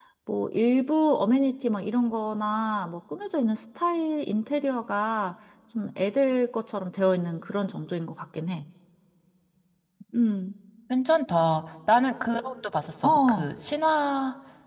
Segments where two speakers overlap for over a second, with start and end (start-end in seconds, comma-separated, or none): none